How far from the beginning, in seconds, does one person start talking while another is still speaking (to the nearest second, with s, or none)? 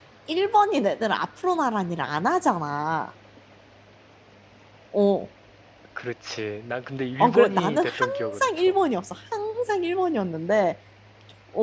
7 s